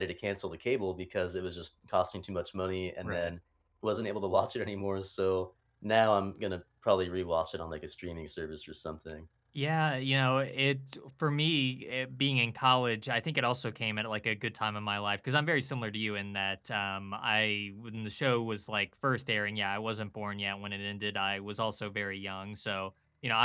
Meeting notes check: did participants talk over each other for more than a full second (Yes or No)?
No